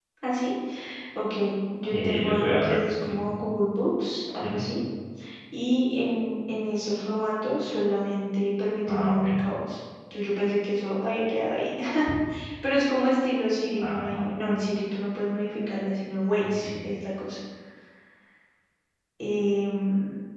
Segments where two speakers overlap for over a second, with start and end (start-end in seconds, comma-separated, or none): 1.9-3.2